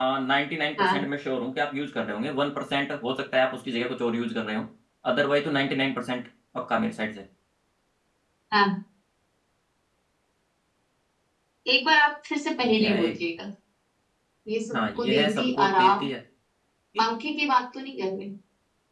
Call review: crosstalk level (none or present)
present